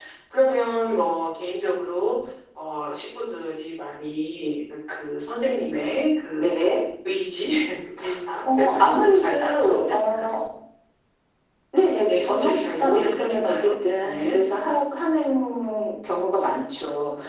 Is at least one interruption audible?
Yes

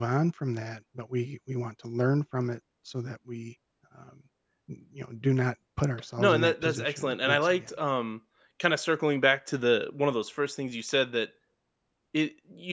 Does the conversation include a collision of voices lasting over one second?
Yes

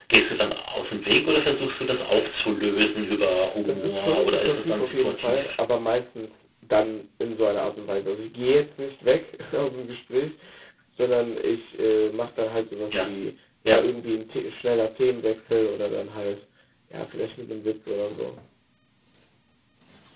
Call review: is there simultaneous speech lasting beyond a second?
Yes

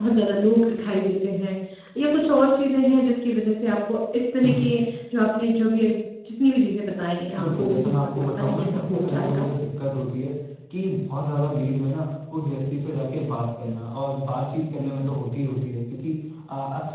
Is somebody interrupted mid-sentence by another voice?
Yes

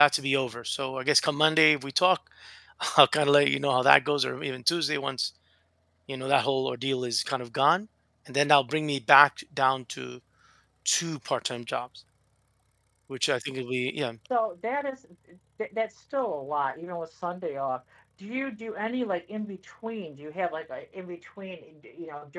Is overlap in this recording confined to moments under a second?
Yes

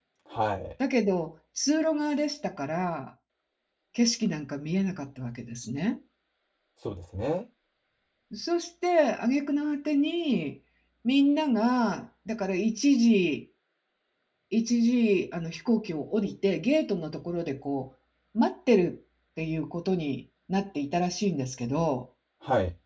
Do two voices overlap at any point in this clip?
No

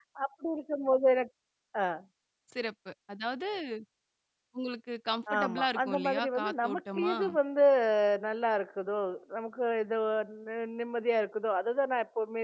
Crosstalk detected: Yes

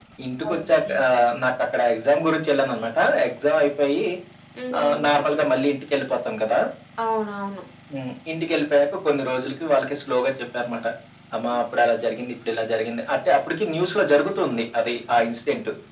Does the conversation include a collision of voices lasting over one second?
No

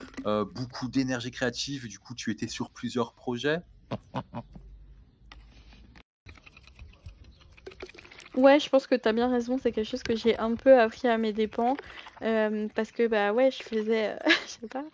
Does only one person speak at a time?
Yes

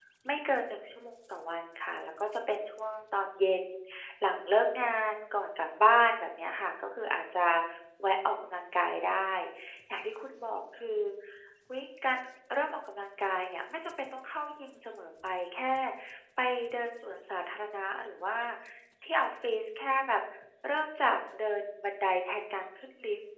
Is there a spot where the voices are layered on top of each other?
No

